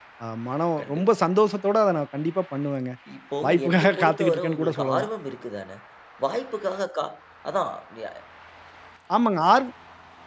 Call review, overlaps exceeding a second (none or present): present